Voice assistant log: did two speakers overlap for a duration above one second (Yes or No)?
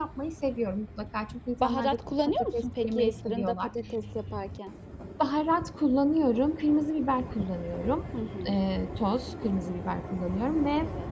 Yes